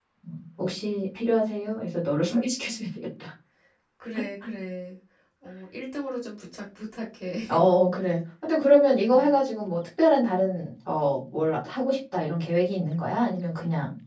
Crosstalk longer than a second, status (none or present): none